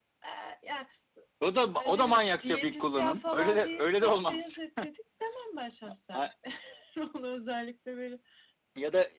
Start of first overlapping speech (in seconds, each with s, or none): 1.7 s